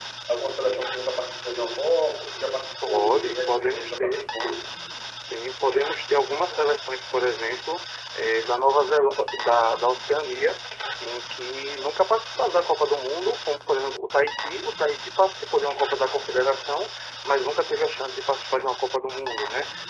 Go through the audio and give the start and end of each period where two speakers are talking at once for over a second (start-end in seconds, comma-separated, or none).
2.9-4.2